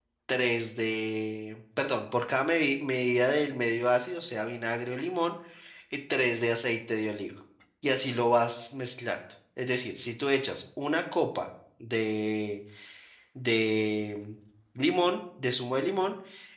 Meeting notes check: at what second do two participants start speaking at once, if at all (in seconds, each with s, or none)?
none